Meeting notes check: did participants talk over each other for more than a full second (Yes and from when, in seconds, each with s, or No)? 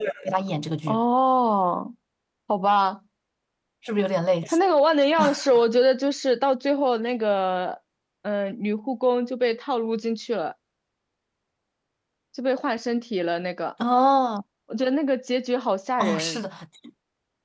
No